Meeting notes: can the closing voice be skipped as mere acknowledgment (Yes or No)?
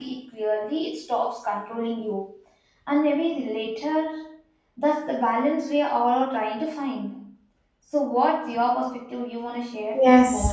No